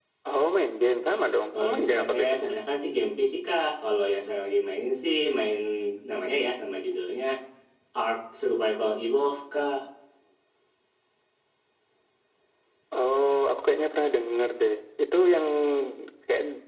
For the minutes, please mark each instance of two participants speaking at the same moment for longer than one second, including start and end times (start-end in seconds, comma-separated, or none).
1.1-2.5